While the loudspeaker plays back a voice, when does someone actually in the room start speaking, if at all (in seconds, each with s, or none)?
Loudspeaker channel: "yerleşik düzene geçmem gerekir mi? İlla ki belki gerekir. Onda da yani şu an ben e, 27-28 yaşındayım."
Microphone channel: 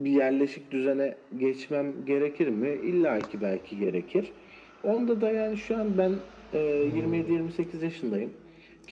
6.8 s